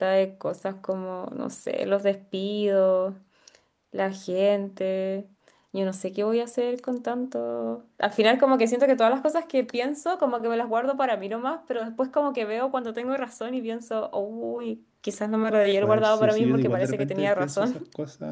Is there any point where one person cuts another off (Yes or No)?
Yes